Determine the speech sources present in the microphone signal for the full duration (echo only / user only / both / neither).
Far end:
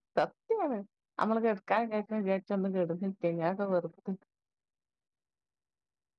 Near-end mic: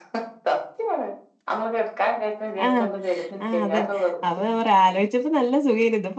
both